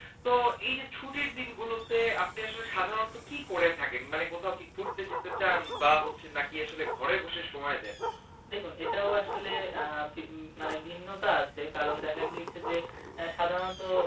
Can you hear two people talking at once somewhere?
No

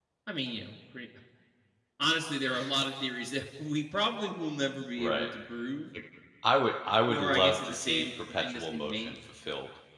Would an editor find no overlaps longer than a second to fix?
No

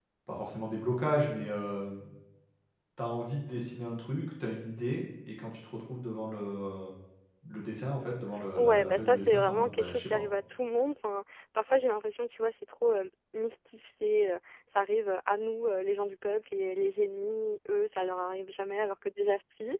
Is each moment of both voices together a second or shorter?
No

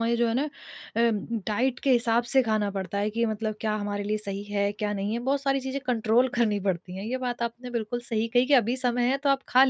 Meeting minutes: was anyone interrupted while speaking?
No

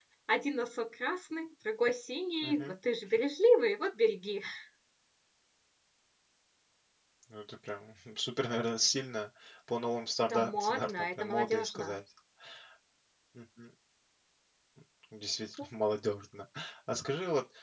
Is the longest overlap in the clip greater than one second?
Yes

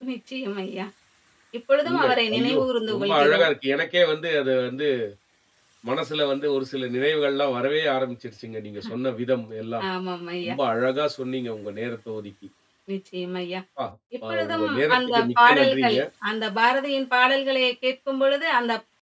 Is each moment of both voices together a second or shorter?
No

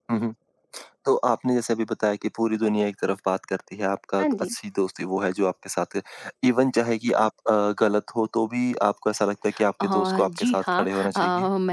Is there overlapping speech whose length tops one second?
Yes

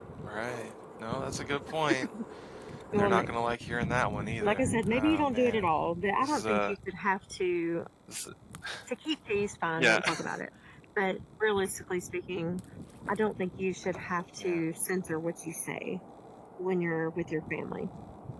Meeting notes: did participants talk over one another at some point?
Yes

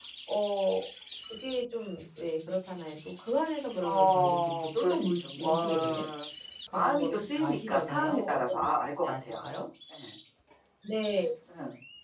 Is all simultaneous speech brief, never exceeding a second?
No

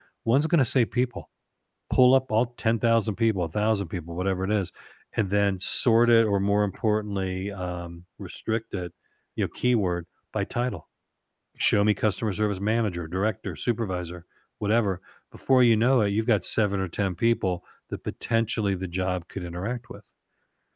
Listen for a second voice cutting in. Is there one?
No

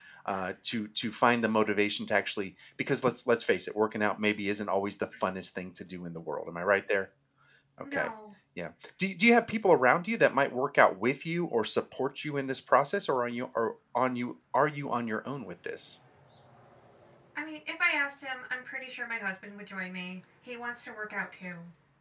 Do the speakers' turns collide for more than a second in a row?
No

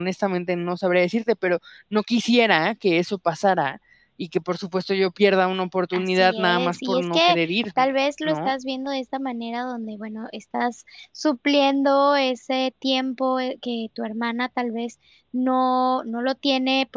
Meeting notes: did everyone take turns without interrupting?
No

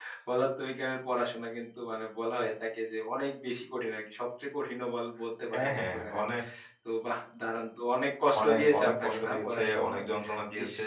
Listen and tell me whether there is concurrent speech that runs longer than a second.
Yes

